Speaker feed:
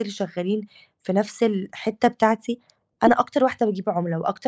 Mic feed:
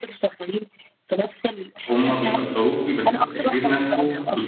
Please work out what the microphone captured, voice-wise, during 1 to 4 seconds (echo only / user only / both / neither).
both